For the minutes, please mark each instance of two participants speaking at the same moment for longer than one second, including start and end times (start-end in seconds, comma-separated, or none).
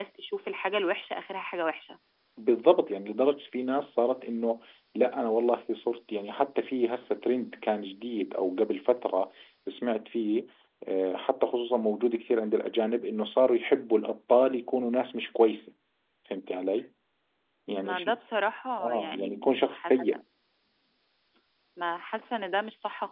18.8-20.2